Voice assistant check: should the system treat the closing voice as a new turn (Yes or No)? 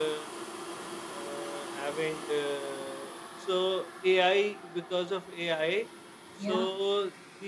No